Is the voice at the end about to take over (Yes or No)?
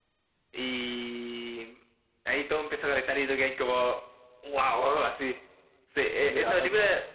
No